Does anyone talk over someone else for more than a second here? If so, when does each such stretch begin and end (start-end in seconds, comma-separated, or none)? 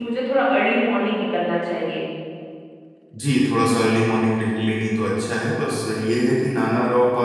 none